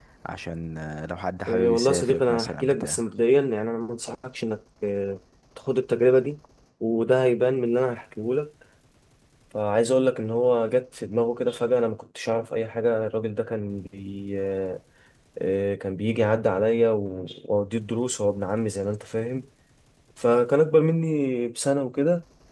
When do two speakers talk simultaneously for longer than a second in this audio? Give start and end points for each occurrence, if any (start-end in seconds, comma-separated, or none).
1.5-3.0